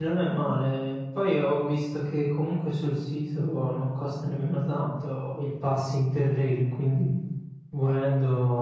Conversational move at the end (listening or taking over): listening